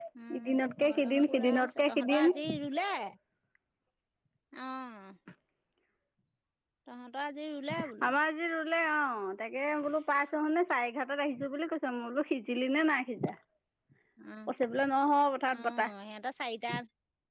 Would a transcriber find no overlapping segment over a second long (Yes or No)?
No